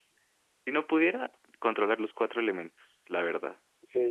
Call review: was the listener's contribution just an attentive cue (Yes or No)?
No